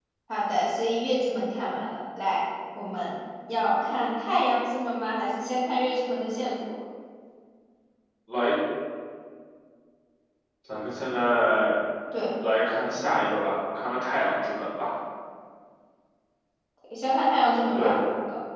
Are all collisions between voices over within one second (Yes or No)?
Yes